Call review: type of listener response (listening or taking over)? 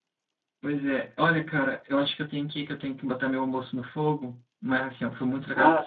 listening